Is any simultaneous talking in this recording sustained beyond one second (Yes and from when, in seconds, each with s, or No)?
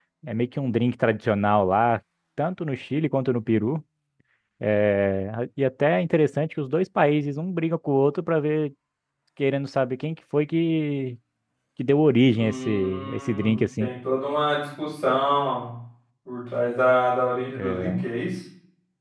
Yes, from 12.3 s